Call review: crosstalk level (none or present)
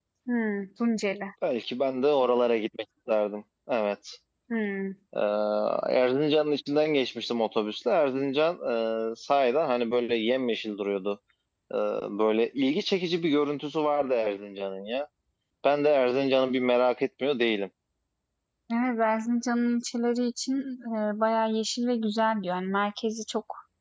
none